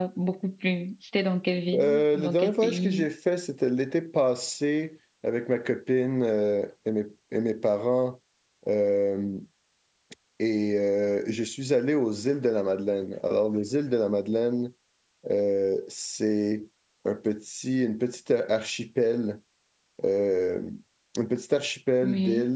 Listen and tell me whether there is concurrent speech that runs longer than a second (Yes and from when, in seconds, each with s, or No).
Yes, from 1.7 s